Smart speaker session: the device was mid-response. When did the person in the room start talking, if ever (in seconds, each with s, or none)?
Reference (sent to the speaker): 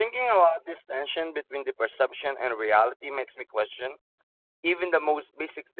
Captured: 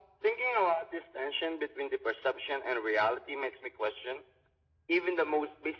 none